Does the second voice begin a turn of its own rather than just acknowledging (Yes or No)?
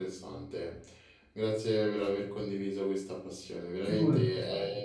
No